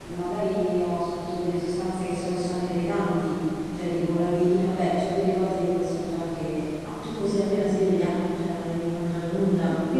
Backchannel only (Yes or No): No